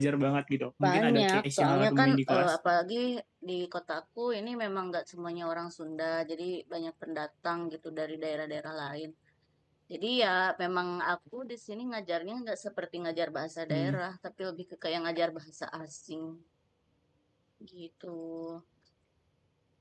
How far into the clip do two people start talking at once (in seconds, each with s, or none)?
0.8 s